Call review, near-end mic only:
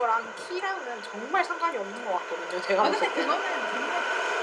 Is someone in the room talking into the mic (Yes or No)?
Yes